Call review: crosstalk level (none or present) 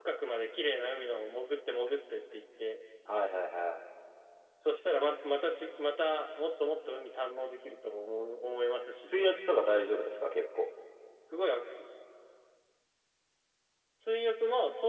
none